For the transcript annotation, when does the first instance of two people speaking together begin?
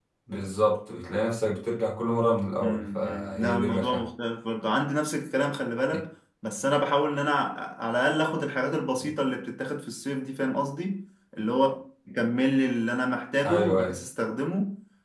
3 s

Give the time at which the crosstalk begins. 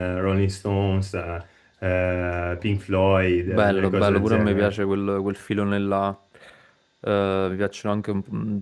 3 s

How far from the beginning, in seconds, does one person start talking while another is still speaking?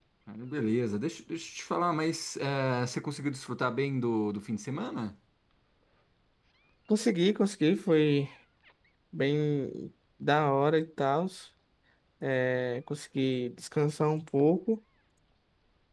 none

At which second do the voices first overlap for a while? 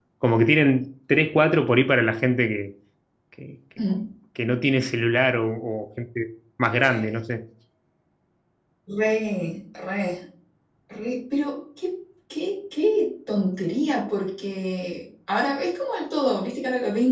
none

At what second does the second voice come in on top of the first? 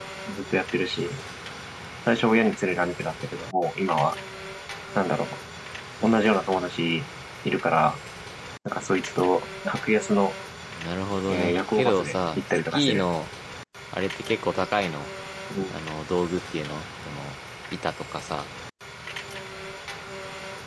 11 s

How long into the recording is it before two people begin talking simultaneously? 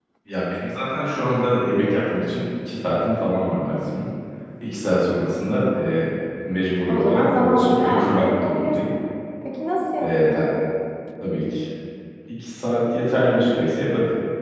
7 s

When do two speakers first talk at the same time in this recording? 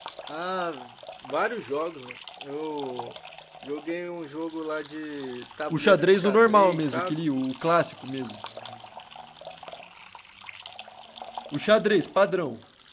6 s

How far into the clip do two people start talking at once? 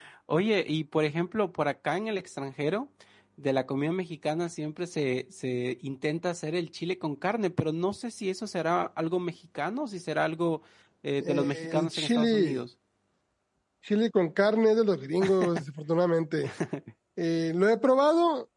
11 s

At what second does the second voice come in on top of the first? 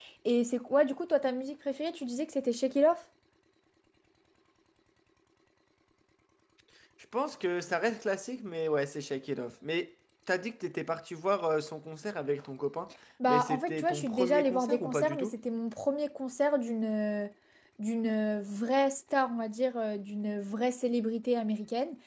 13 s

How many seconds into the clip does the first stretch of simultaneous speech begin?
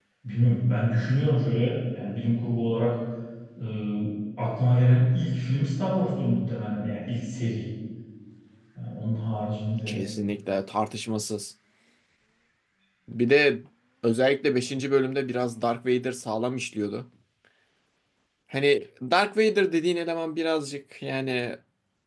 none

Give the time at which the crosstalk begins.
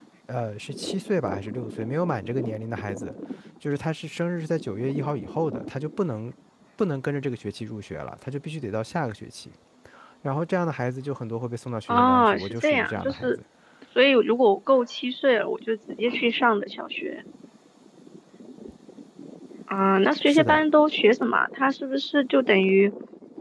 12 s

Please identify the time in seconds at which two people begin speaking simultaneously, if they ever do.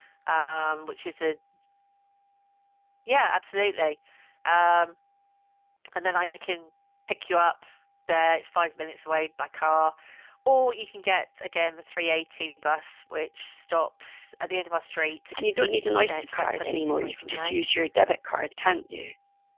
16 s

